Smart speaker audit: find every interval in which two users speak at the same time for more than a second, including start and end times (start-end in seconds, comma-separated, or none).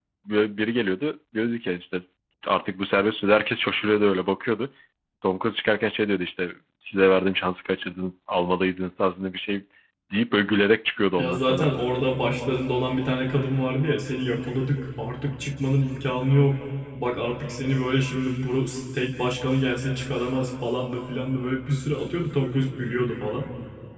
none